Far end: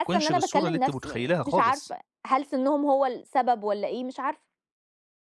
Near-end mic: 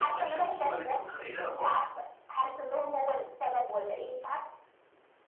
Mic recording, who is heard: echo only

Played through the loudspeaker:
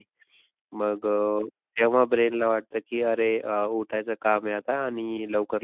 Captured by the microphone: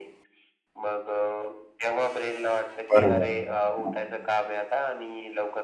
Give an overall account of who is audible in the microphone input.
both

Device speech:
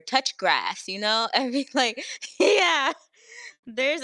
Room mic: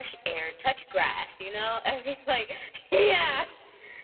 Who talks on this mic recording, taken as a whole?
echo only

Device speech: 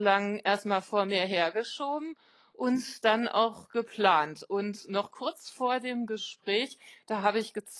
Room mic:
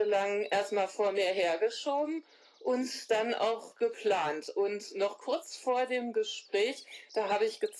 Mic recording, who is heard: echo only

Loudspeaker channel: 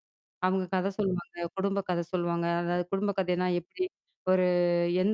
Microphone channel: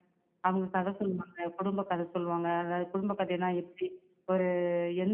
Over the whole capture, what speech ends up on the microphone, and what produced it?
echo only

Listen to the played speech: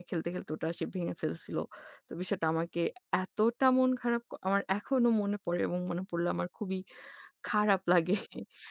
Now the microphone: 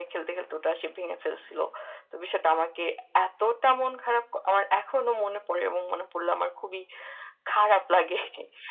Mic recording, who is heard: echo only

